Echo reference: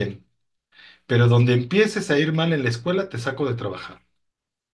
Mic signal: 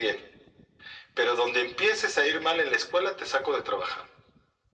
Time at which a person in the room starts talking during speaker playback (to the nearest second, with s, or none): none